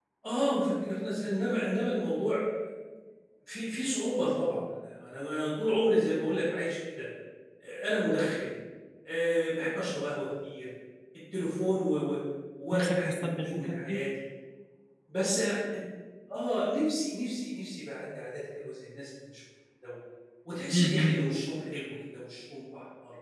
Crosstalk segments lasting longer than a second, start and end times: 12.7-14.0

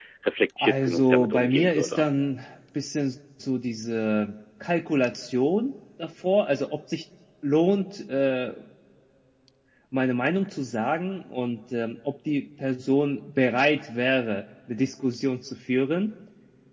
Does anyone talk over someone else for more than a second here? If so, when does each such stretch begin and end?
0.6-2.1

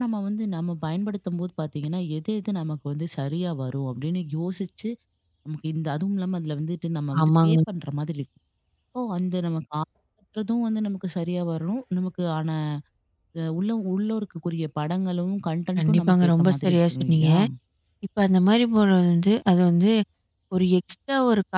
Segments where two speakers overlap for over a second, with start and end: 15.8-17.3

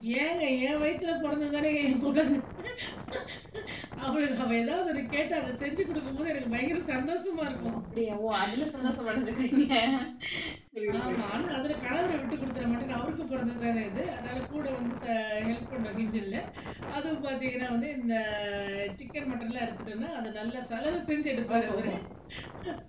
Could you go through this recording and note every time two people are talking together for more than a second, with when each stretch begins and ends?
none

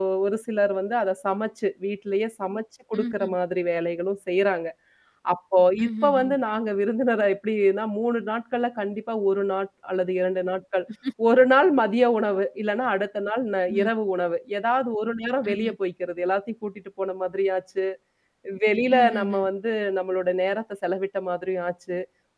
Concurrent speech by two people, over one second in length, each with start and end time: none

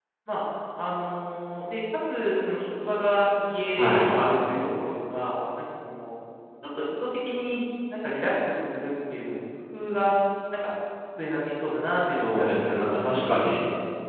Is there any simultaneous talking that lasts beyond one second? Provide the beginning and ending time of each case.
12.1-13.3

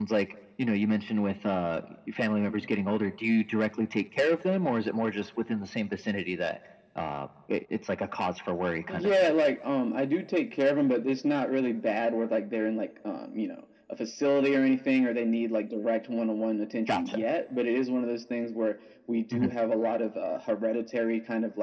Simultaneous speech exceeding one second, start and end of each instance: none

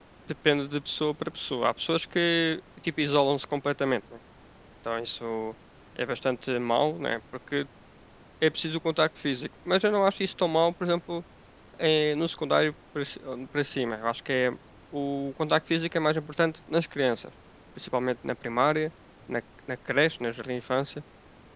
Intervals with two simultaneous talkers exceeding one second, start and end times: none

